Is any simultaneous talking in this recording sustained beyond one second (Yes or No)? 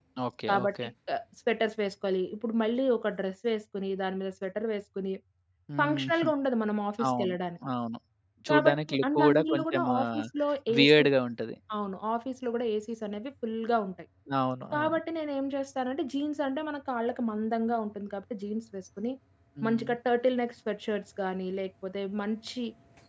Yes